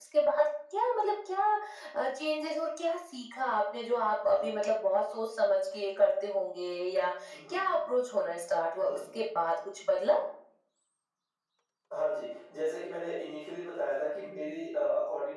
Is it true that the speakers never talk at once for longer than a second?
Yes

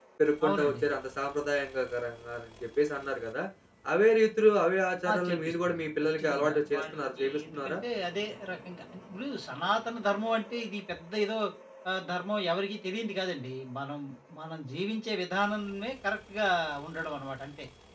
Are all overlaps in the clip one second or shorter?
No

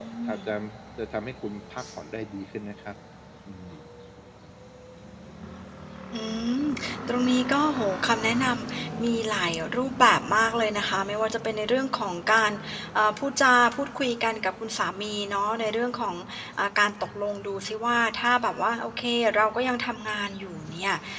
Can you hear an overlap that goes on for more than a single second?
No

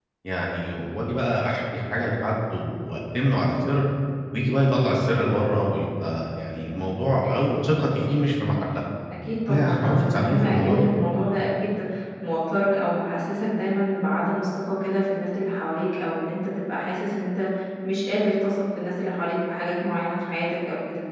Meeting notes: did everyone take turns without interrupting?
No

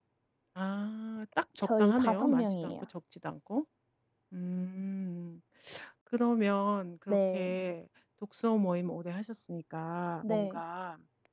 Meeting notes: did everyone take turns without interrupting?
No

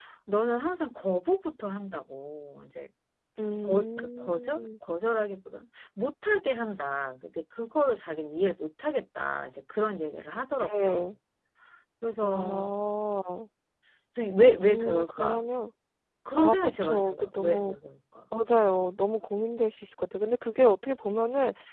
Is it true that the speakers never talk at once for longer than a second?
No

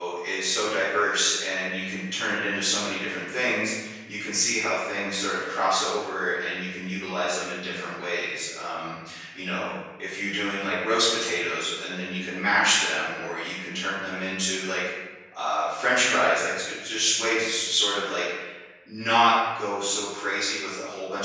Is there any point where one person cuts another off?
No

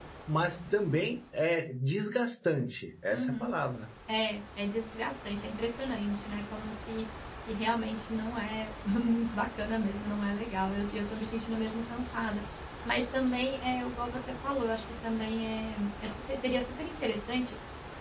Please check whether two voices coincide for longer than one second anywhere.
No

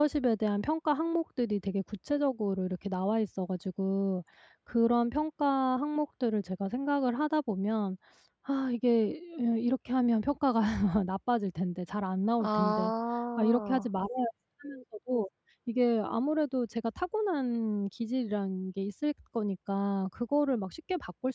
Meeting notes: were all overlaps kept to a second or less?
Yes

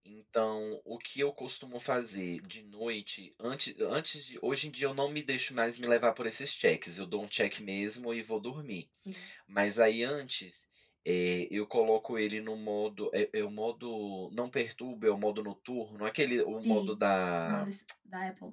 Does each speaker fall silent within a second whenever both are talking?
Yes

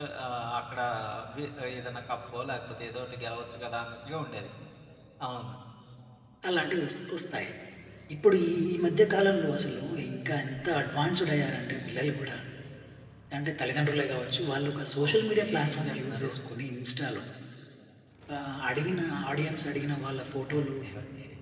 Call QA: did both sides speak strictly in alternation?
No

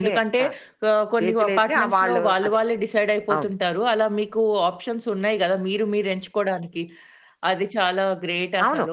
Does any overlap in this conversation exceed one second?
Yes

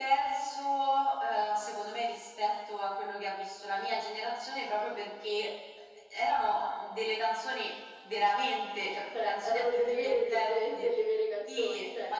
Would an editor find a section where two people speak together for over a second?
Yes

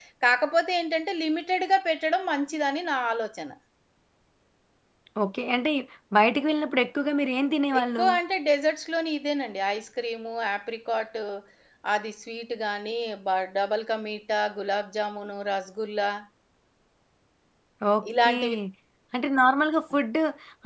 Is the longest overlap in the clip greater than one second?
No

